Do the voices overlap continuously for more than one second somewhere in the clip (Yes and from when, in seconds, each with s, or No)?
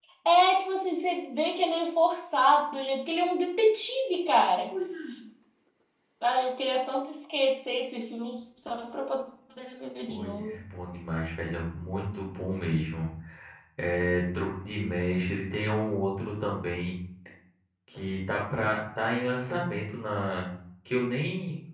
No